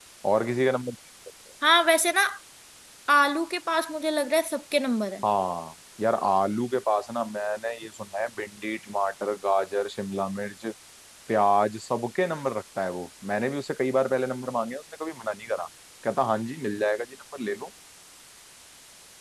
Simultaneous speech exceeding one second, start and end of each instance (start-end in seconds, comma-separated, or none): none